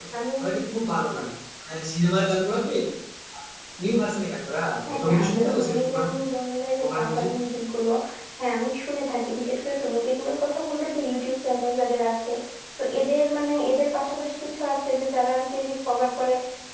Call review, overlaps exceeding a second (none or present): present